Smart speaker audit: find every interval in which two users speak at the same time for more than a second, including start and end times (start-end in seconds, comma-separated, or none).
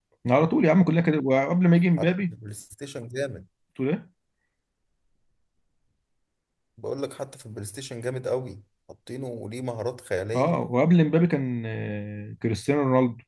none